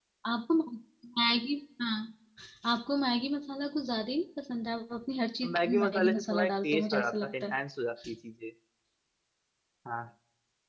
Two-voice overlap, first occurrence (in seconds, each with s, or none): 5.4 s